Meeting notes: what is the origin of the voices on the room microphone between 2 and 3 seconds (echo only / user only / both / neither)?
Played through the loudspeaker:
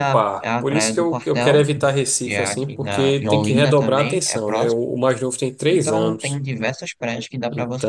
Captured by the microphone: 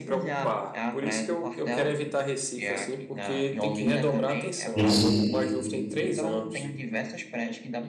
echo only